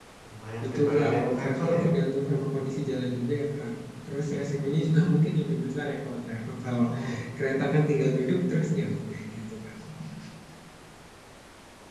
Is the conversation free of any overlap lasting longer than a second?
No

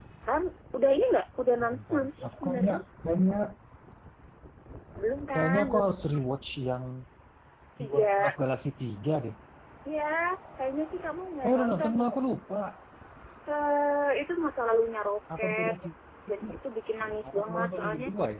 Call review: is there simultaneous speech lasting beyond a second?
Yes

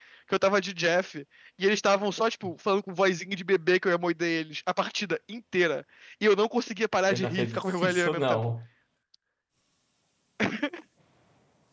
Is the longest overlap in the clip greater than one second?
Yes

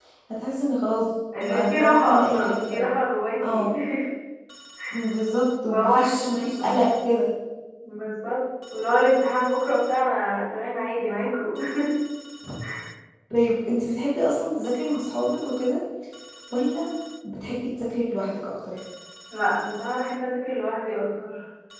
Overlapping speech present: Yes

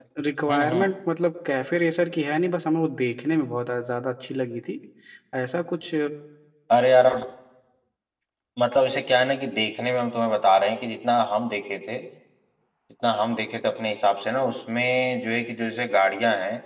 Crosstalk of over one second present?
No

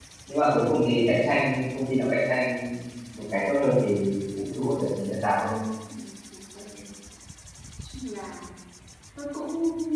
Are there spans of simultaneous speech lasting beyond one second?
No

